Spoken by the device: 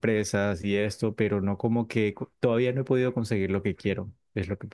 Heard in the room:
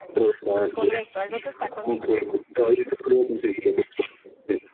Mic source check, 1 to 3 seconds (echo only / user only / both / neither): both